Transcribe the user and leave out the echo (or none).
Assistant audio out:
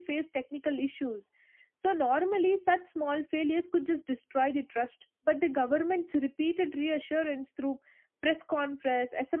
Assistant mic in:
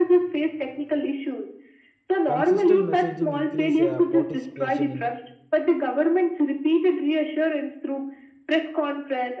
consistent messaging increase uh, participation in